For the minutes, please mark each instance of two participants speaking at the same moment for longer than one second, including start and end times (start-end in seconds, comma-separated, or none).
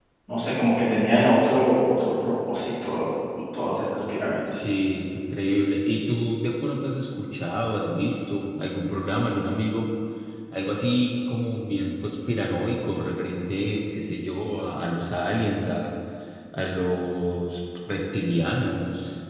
none